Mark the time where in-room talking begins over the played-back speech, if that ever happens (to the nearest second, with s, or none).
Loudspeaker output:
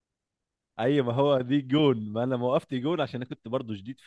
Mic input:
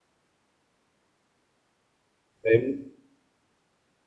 2 s